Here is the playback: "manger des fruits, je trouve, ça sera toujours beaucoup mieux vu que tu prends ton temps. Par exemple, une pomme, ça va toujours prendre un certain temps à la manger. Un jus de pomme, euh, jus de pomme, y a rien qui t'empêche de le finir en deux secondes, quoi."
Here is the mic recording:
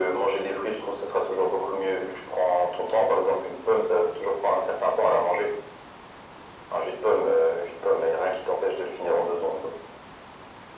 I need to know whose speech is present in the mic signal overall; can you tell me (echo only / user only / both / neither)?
echo only